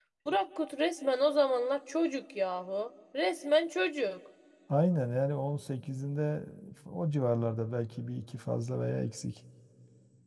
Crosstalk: none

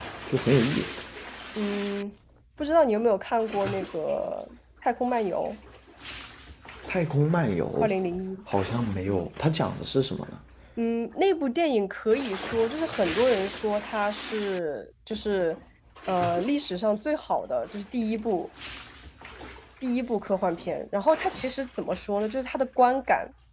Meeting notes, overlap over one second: none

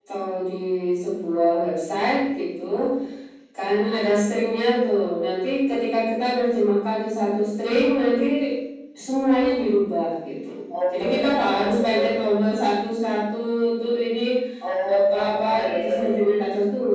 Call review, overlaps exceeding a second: present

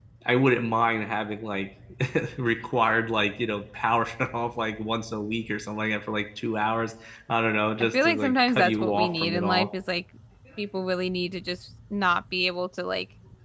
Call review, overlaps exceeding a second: present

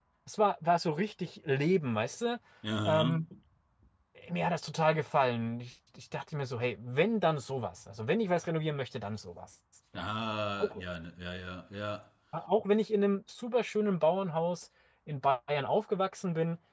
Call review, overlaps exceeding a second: none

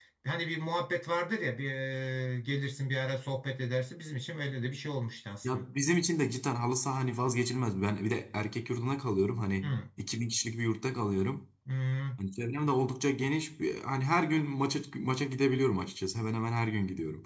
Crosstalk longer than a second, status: none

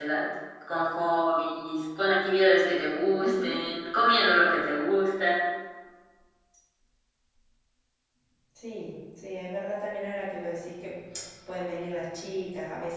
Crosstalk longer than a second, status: none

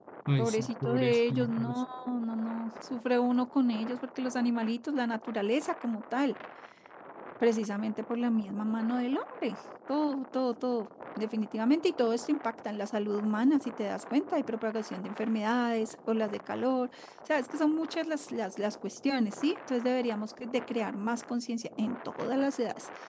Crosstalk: present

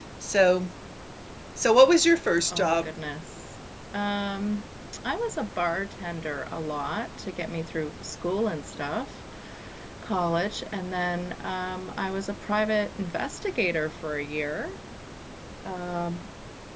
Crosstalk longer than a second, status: none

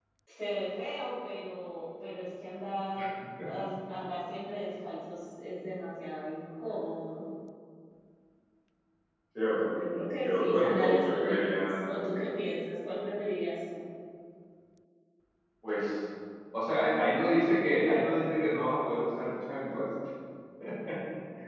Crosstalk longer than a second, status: present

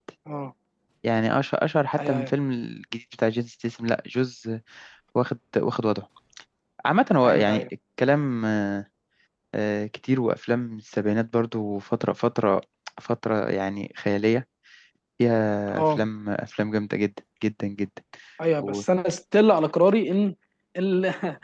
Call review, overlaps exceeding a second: none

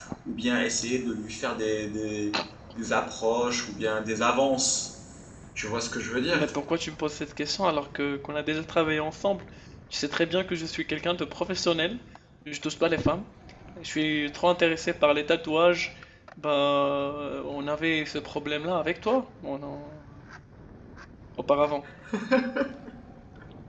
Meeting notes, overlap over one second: none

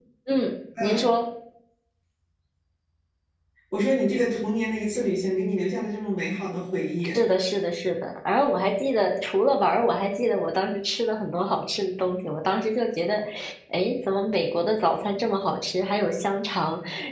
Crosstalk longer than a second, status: none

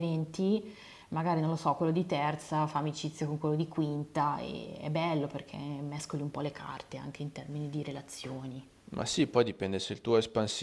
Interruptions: none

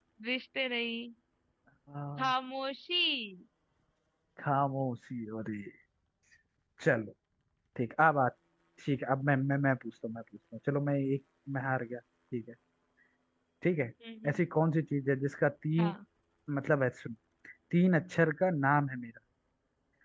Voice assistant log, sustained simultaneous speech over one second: none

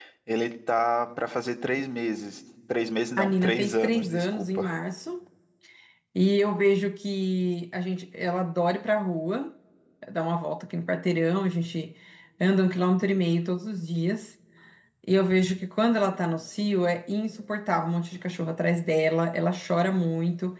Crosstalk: present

